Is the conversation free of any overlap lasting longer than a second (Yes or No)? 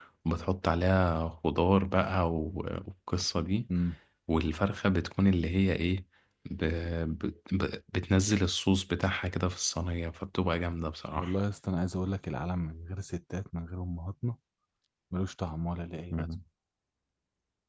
Yes